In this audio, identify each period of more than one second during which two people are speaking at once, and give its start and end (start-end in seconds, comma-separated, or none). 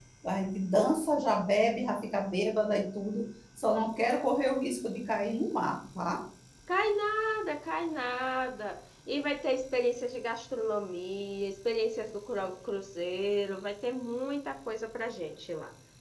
none